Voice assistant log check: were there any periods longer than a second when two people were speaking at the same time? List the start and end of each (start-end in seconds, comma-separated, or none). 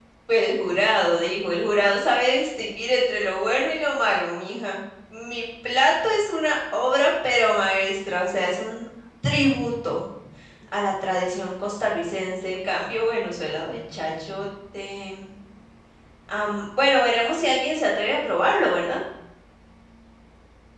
none